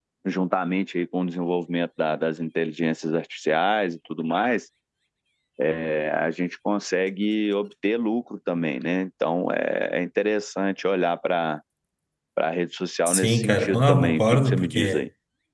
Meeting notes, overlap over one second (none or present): present